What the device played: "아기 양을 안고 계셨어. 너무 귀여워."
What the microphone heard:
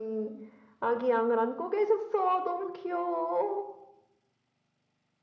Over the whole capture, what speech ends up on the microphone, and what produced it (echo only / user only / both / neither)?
echo only